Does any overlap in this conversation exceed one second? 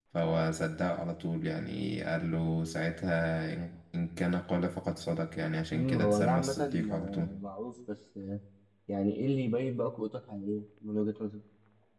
Yes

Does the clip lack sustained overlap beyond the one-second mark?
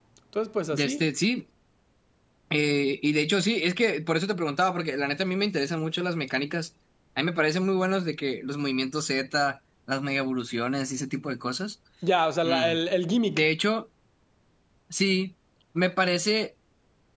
Yes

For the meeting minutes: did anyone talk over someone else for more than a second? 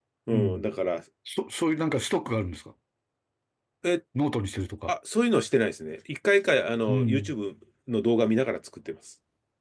No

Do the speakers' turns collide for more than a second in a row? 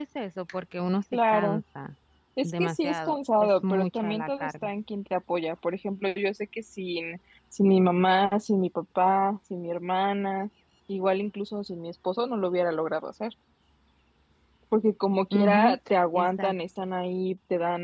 Yes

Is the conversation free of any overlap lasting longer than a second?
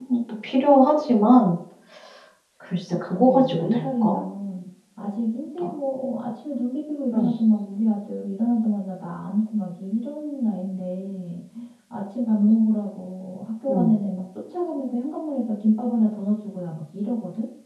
No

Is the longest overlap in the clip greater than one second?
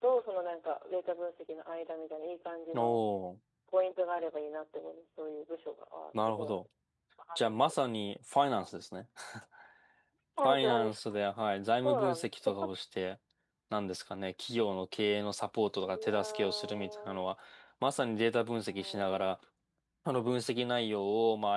Yes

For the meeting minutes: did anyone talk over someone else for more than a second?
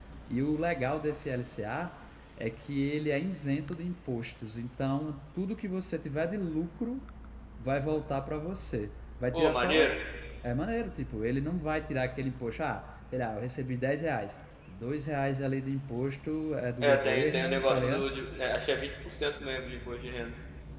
Yes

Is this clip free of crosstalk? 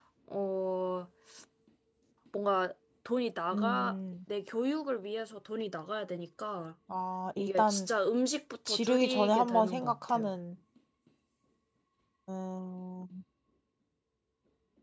No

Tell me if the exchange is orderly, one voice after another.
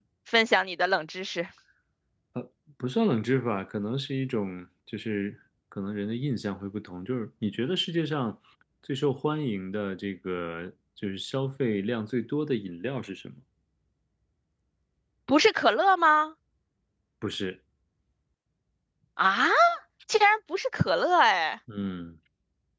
Yes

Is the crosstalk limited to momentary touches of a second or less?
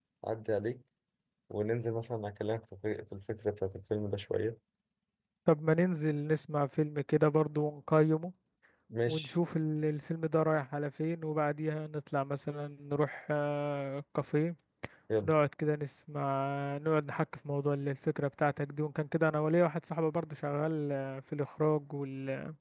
Yes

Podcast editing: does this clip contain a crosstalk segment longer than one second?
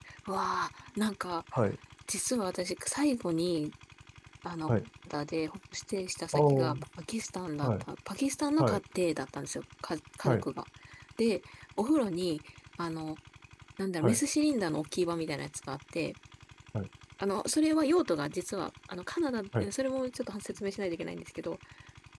No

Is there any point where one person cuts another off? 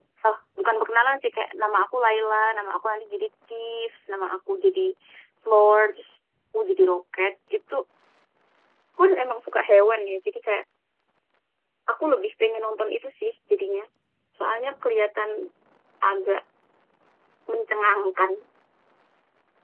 No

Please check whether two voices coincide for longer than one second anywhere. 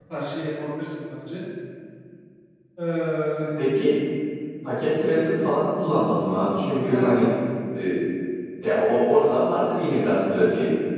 No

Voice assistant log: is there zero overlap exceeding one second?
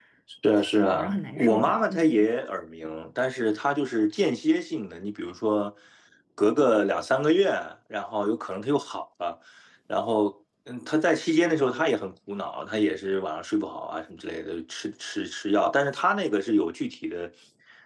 No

